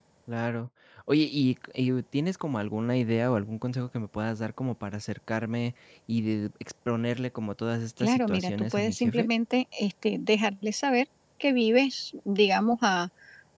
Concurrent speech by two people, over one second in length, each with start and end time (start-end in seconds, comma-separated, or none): 8.0-9.3